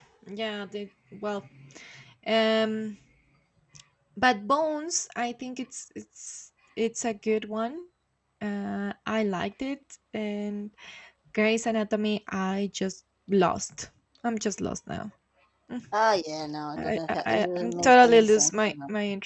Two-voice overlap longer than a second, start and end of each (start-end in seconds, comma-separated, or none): 16.8-18.7